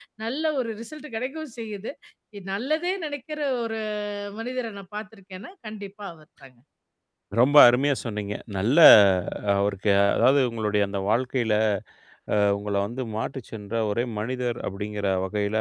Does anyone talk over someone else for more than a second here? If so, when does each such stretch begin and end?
none

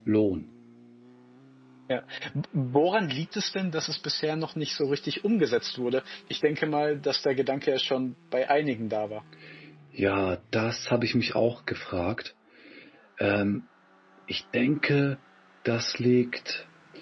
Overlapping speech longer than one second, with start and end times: none

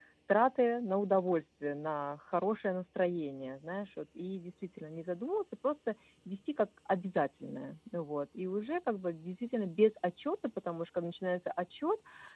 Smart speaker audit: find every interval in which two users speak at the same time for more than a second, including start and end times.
none

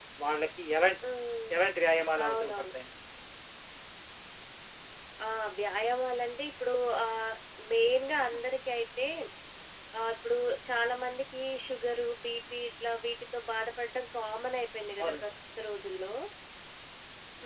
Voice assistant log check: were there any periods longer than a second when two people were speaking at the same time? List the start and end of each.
none

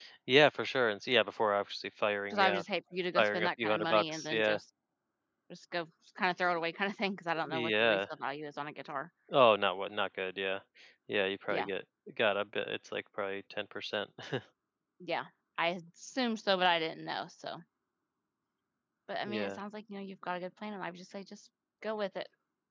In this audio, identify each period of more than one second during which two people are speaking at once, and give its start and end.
3.2-4.6

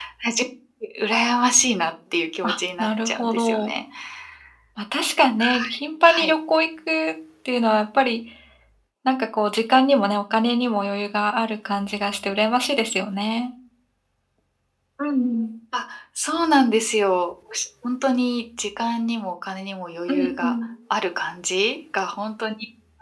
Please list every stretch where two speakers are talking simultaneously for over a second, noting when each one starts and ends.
2.4-3.7

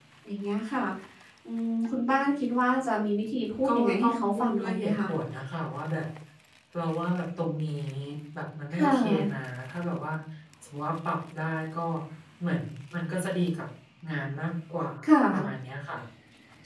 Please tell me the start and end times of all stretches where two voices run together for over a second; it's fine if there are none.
3.6-5.1

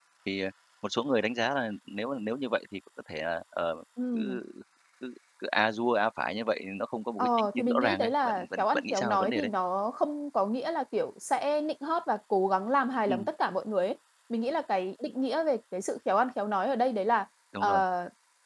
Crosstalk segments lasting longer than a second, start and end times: 7.2-9.5

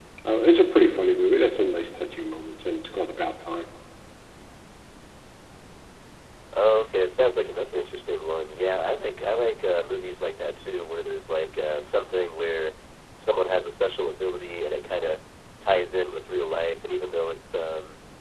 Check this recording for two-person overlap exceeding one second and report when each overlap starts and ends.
none

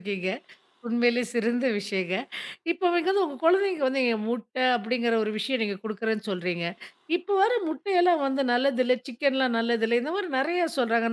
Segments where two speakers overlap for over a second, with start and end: none

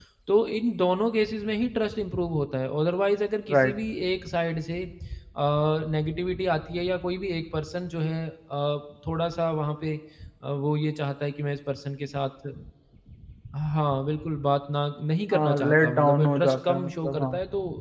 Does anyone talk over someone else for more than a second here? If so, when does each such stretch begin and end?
15.3-17.3

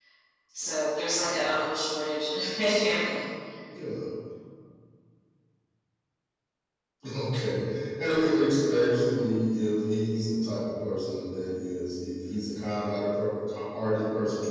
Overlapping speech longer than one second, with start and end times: none

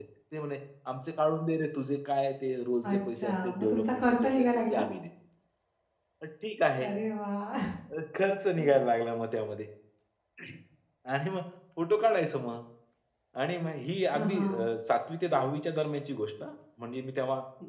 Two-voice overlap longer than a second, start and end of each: 2.9-4.8

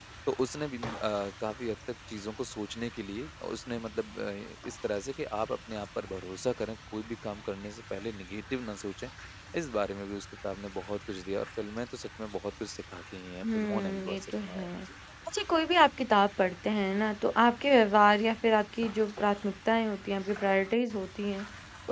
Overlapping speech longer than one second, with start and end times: 13.4-14.7

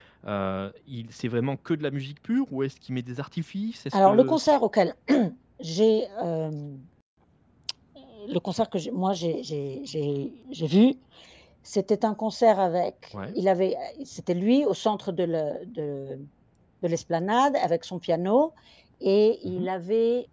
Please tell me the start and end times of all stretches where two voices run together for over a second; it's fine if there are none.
none

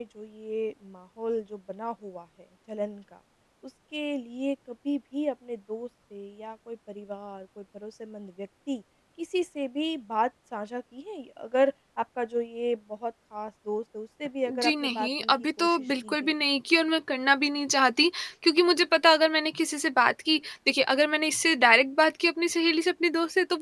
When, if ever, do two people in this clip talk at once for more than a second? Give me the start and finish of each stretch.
14.6-16.3

